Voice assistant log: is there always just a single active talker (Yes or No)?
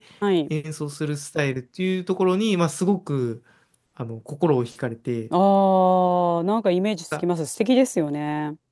Yes